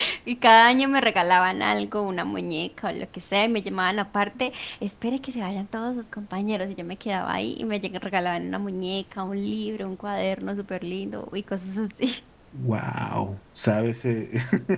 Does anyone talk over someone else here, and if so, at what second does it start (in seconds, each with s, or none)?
none